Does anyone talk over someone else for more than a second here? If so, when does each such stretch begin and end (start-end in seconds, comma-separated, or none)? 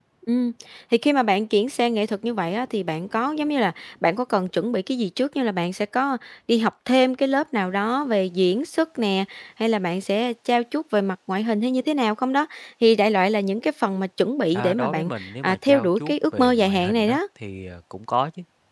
14.5-17.2